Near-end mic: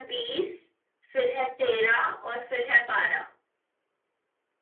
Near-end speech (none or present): none